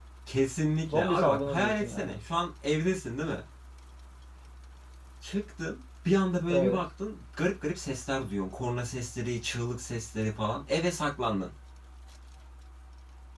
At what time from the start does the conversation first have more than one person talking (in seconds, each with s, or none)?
0.9 s